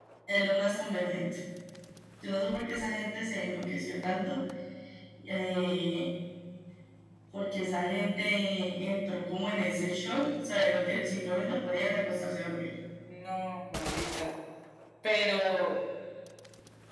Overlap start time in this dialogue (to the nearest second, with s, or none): none